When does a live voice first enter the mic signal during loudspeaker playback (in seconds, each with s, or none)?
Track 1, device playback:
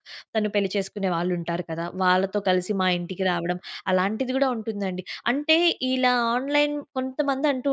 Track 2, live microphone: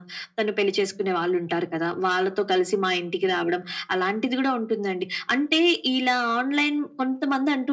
none